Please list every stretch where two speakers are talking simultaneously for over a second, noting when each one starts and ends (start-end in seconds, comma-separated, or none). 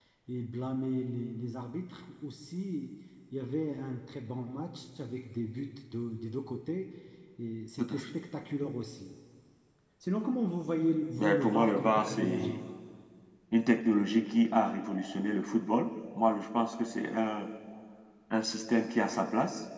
11.2-12.6